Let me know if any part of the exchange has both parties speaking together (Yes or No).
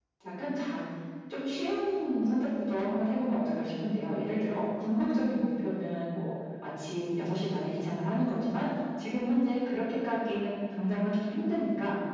No